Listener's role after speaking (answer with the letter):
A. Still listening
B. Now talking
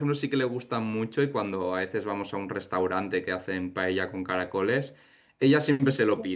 A